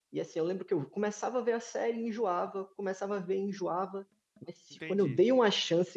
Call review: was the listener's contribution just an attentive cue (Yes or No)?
Yes